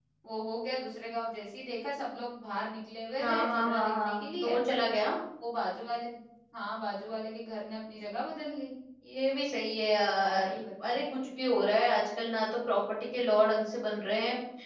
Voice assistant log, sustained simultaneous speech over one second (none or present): present